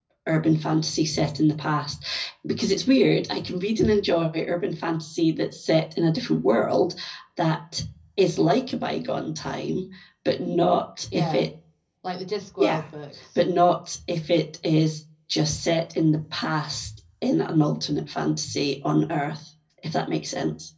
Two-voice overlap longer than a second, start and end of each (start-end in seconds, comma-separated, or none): none